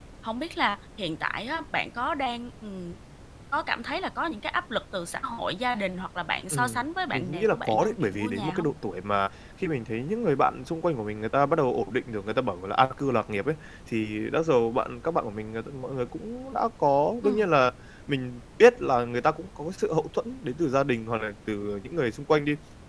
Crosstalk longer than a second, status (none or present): present